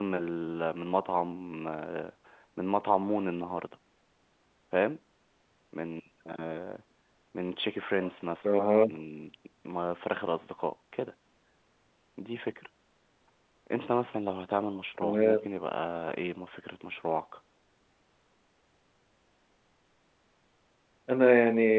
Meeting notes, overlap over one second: none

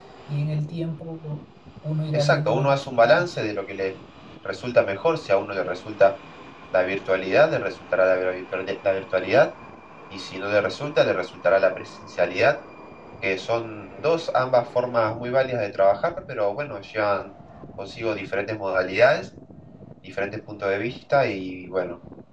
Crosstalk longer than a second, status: present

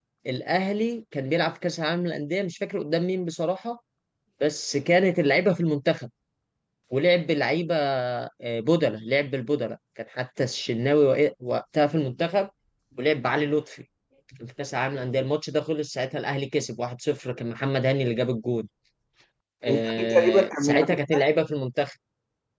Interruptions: present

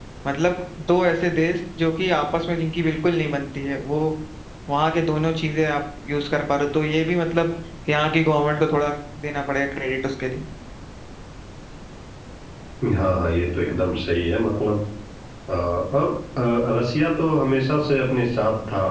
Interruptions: none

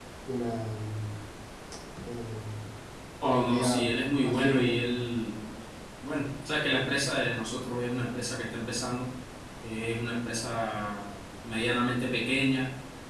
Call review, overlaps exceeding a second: present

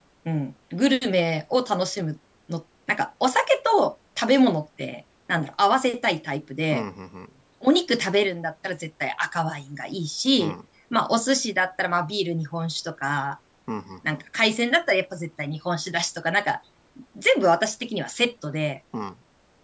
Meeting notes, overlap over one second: none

